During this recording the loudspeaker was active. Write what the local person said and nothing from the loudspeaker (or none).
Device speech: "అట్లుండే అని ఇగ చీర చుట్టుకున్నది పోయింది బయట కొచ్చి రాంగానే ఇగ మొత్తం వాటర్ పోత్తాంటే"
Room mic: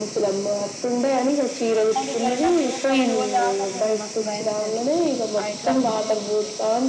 అట్లాంటివి జరిగినప్పుడు కొన్ని రోజులు దాకా అసలు మస్తు భయమైతది ఆ ఇట్లాంటి ఇన్సిడెంట్స్ ఉంటే